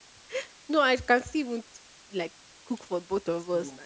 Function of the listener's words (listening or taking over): listening